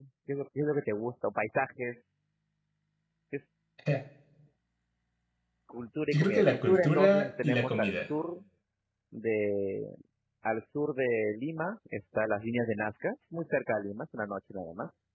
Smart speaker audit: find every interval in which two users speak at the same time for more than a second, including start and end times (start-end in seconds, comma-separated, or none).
6.1-8.1